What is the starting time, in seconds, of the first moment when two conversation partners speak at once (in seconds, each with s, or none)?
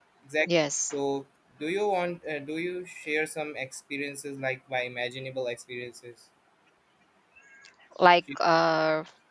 none